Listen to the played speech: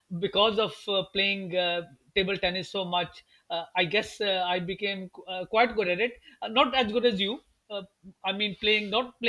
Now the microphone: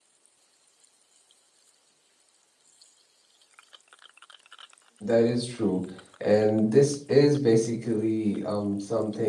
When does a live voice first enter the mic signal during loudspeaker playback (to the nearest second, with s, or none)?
5 s